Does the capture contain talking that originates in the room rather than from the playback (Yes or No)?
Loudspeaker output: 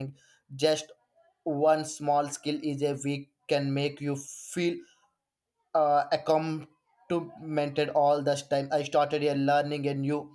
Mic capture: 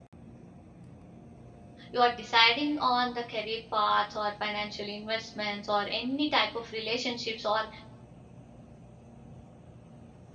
Yes